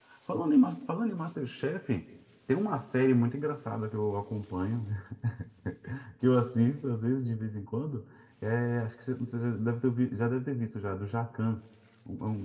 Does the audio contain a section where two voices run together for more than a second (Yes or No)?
No